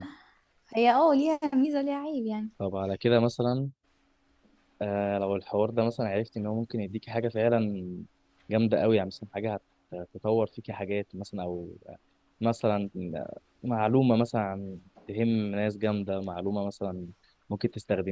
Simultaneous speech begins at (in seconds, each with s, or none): none